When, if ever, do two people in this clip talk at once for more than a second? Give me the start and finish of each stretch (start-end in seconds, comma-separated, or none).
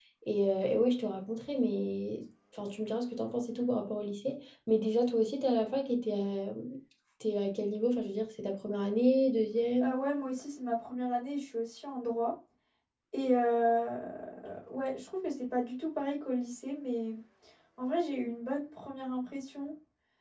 none